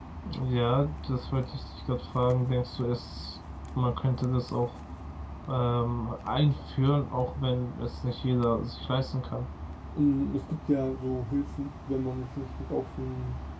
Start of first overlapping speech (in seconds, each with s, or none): none